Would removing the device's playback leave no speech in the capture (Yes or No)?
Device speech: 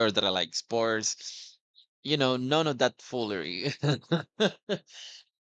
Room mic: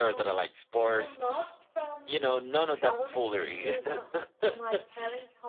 No